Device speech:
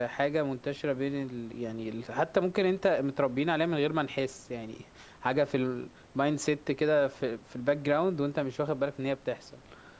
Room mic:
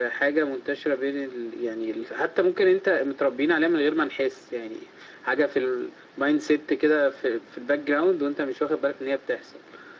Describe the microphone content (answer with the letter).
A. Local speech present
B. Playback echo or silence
B